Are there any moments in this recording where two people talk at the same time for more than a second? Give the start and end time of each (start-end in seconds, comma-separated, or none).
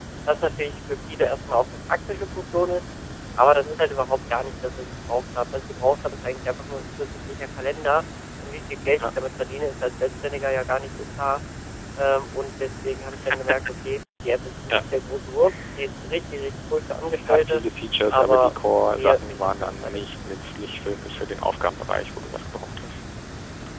18.1-20.0